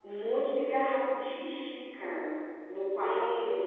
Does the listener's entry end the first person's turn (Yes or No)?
Yes